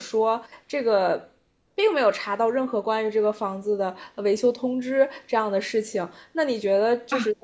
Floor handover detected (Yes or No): No